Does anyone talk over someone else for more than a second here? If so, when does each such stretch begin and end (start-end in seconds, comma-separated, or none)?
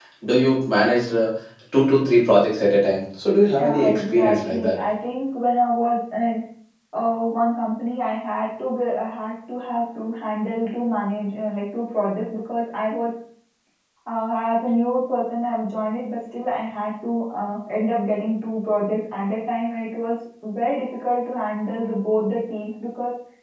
3.6-4.8